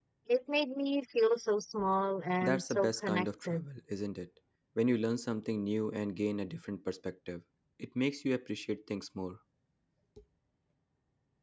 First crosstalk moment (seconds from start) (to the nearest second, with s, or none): 2 s